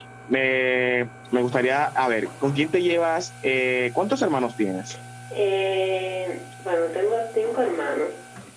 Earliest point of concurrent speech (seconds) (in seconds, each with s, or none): none